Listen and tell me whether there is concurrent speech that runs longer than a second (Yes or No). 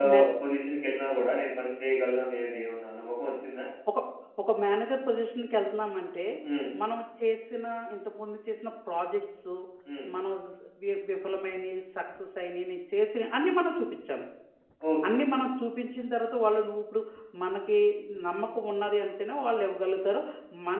No